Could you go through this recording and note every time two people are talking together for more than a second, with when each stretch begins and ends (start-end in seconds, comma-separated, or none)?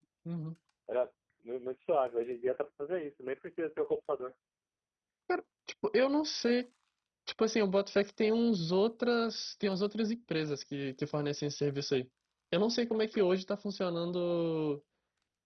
none